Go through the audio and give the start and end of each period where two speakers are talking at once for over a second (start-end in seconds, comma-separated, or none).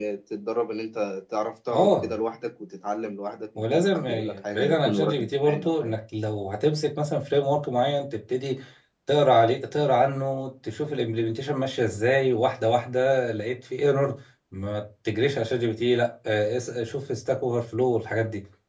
3.6-5.9